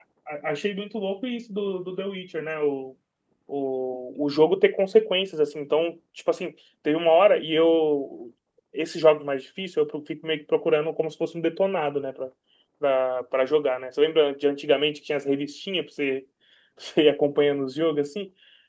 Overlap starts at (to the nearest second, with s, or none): none